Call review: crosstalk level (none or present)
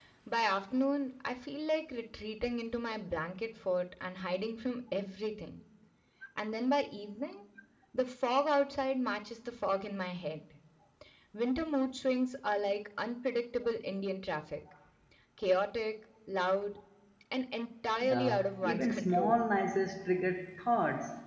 present